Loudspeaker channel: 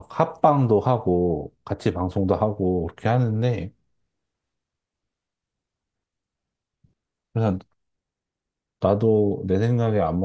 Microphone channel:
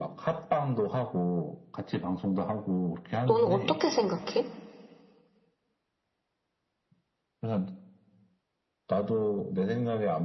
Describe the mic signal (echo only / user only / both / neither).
both